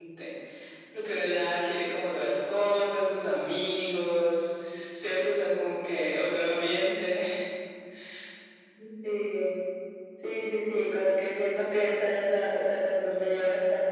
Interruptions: none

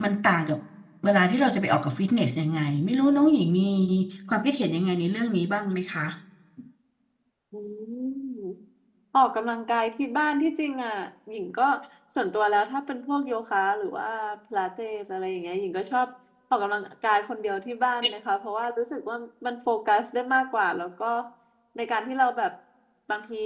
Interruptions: none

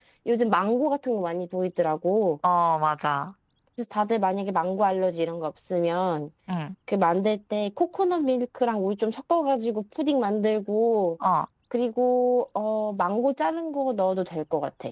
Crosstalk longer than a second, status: none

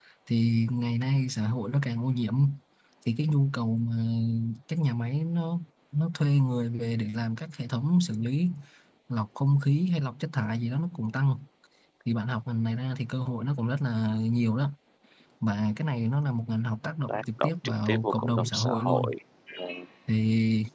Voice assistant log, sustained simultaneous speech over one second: present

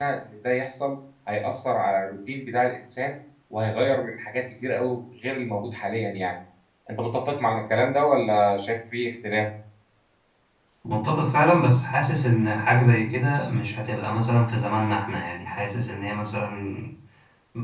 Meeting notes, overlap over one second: none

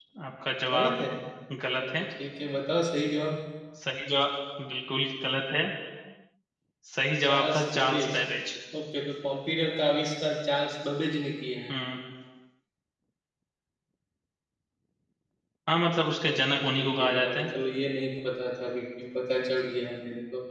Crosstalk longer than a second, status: present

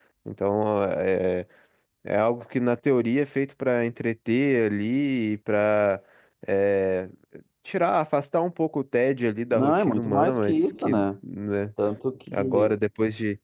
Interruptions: present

